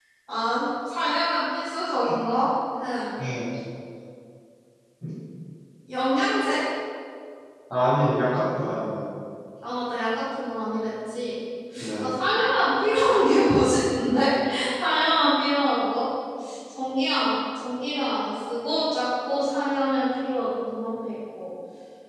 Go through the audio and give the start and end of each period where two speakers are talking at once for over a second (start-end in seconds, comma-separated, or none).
none